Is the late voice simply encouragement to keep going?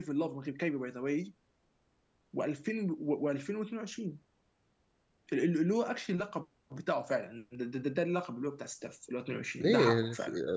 No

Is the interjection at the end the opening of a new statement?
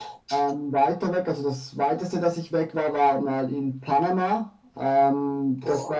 No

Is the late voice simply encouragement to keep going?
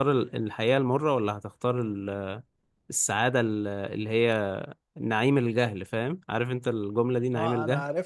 No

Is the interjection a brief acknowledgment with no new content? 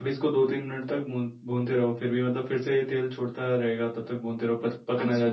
No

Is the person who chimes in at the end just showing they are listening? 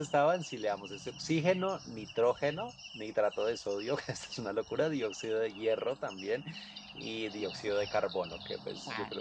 No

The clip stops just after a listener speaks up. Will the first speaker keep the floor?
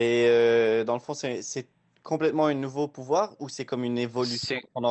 No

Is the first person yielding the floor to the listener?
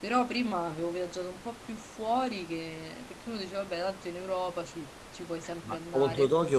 Yes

